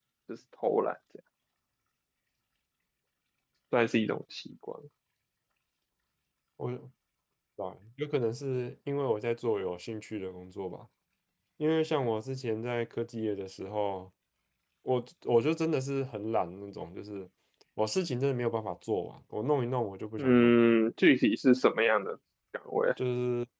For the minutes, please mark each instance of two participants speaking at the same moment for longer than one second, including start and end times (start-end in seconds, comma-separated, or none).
none